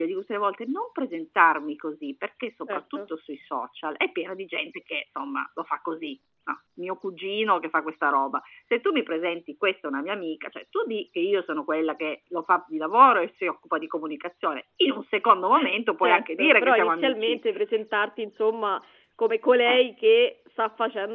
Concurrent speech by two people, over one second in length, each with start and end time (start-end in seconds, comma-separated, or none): 16.0-17.4